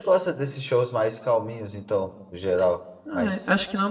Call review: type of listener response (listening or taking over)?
taking over